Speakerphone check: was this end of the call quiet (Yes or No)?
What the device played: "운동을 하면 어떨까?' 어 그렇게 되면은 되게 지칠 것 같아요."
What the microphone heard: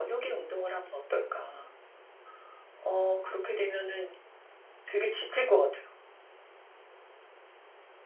Yes